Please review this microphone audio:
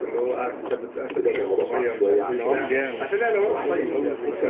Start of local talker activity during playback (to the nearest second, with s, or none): 2 s